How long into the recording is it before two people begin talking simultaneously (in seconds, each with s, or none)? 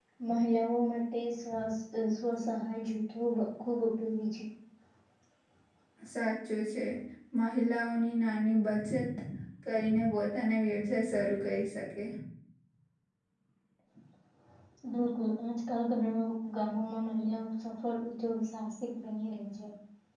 none